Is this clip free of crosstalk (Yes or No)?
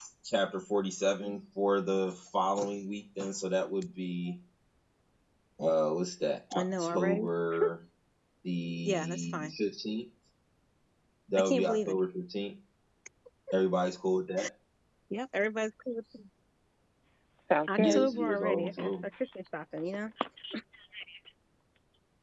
No